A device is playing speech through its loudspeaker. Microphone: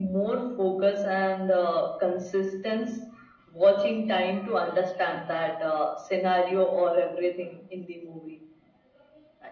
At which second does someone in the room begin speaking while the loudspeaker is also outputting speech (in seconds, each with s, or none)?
none